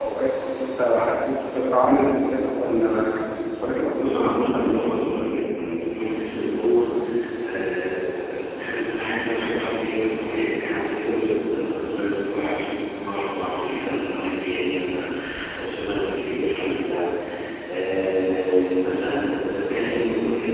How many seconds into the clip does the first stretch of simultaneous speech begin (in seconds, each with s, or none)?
4.0 s